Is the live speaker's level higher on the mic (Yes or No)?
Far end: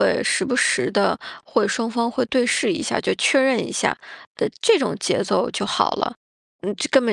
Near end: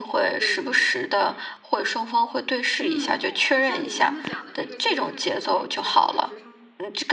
No